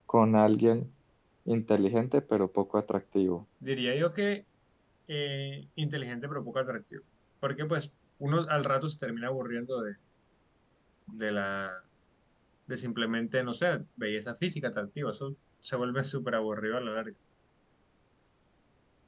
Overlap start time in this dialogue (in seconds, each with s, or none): none